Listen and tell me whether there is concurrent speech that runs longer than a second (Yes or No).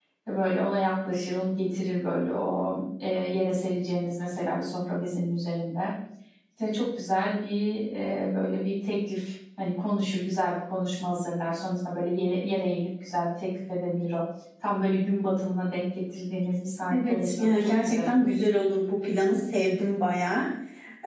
Yes